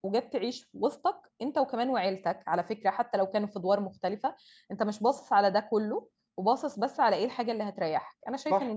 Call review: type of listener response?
taking over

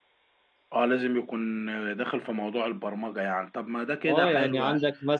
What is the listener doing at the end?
taking over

